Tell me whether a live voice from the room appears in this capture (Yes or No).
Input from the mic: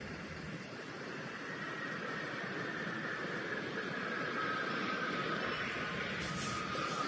No